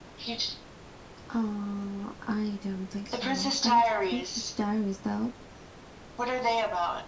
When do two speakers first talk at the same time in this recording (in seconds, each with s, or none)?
3.1 s